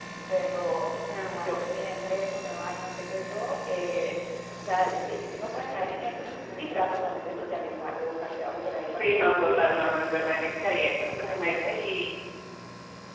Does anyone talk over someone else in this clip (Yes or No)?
Yes